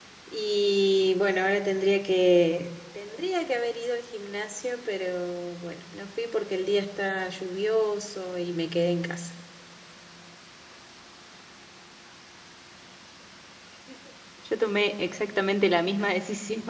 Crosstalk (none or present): none